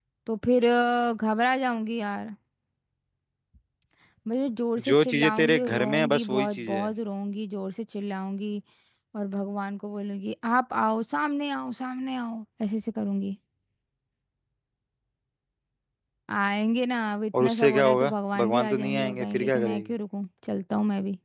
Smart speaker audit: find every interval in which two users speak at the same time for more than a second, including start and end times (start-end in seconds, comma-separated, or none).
4.9-6.9, 17.4-19.8